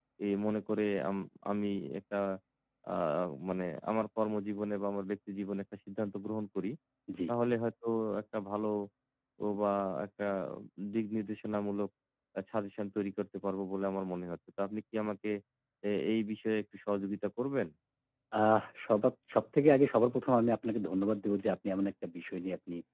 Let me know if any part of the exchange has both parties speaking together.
No

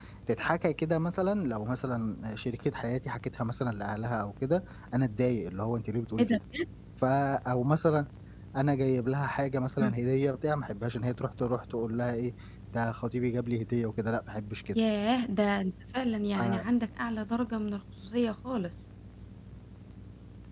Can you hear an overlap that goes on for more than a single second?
No

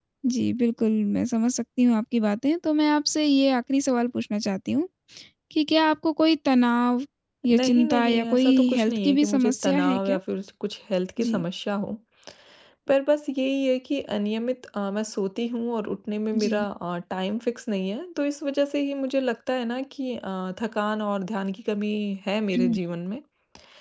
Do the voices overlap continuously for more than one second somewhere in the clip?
Yes, from 7.5 s

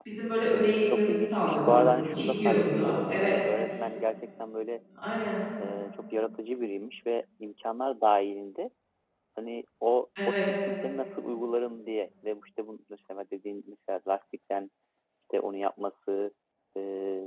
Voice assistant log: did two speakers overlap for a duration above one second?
Yes, from 0.9 s

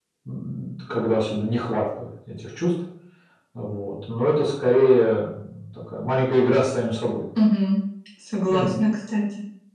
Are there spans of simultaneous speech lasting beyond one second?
No

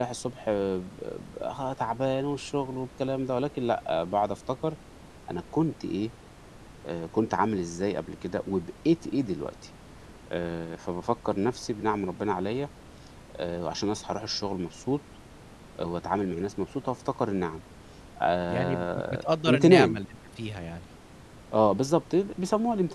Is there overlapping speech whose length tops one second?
Yes, from 18.5 s

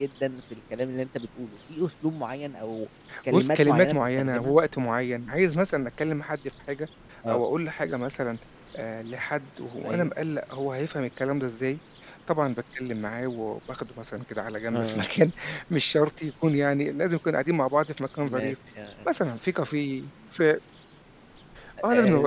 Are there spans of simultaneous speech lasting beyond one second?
Yes, from 3.3 s

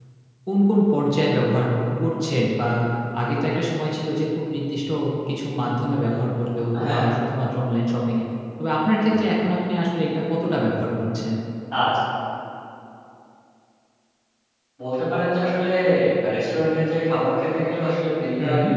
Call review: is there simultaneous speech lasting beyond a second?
No

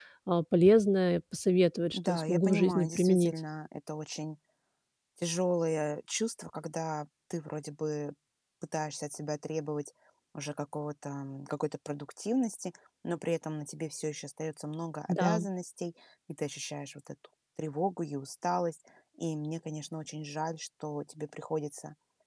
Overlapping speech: Yes, from 1.9 s

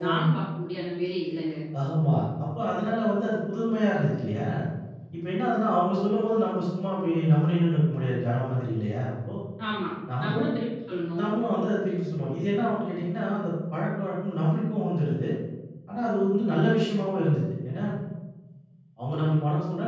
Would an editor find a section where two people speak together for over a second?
No

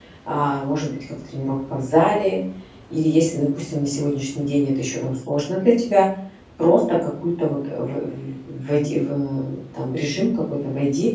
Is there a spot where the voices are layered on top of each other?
No

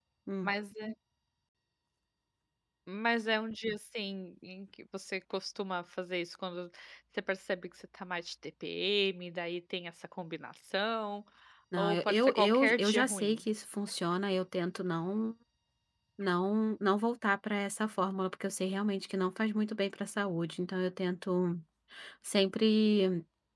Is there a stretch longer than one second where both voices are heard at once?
Yes, from 11.8 s

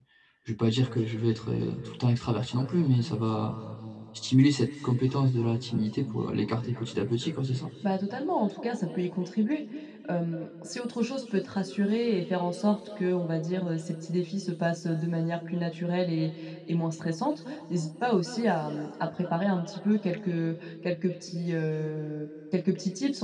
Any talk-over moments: No

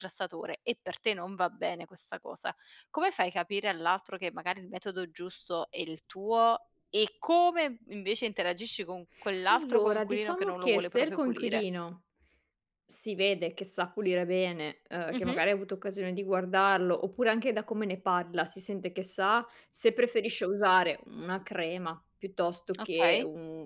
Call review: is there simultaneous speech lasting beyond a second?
Yes, from 9.5 s

